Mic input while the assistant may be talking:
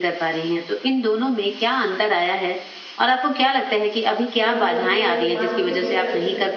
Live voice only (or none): कहीं न कहीं एक मानसिक अ,